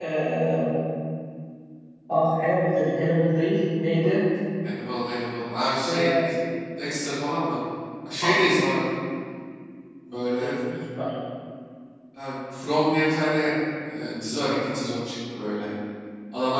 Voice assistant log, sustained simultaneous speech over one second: none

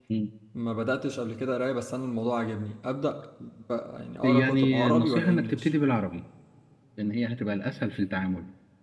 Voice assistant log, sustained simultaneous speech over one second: present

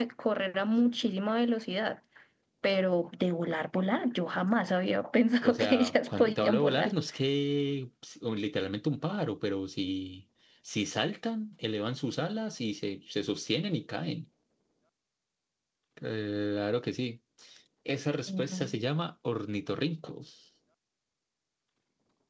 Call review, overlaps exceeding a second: present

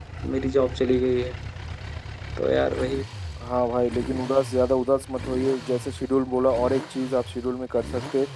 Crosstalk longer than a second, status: none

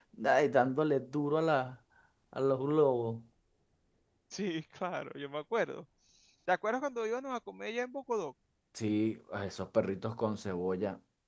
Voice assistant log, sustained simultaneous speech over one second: none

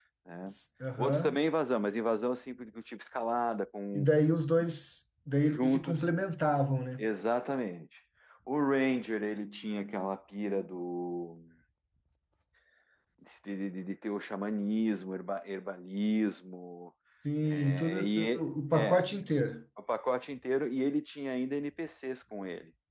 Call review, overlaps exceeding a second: present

